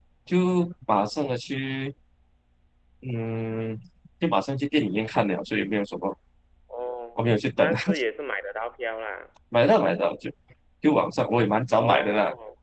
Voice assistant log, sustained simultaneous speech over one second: none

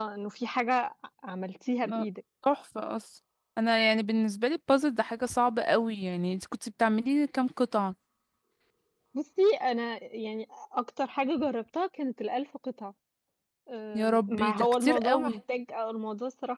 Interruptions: present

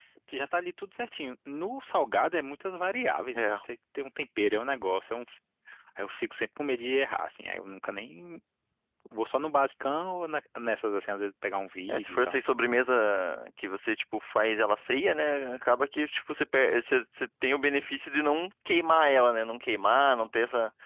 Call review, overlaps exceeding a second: none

